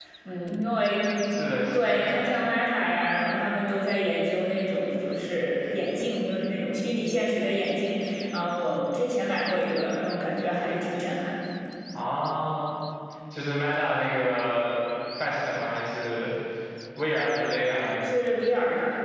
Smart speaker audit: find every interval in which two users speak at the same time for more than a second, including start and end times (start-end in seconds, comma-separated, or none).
none